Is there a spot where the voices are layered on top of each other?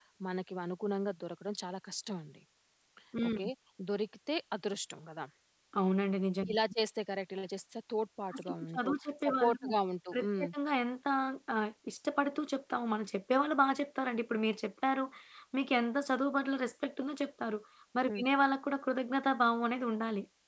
Yes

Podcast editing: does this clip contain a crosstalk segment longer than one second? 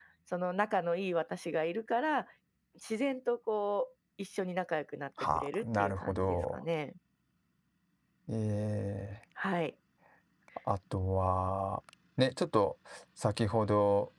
Yes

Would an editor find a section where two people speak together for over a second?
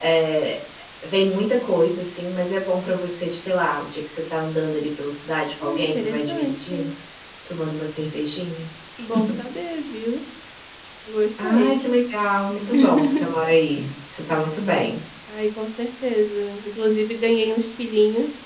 Yes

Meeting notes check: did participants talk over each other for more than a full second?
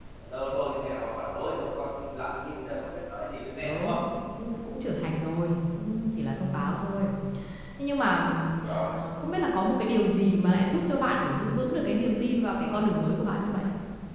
No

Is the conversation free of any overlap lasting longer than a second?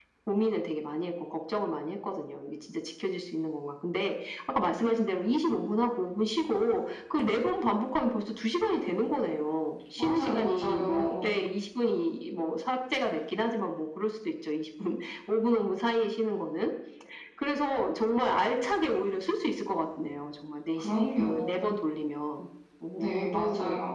No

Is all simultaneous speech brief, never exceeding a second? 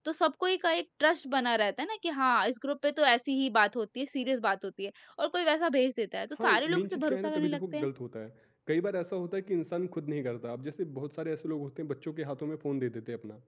No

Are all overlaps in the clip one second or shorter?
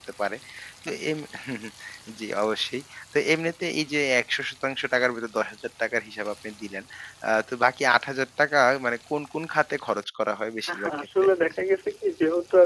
Yes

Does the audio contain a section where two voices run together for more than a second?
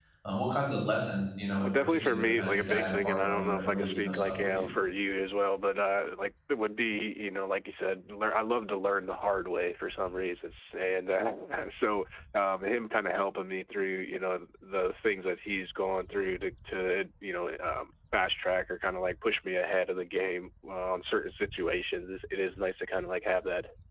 Yes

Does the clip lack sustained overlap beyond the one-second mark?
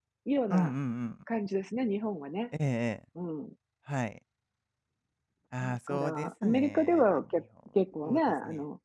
No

